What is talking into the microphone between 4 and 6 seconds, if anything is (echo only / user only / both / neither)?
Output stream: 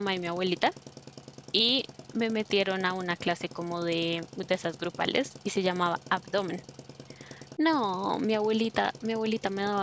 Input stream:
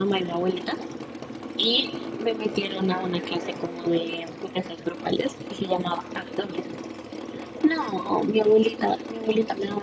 echo only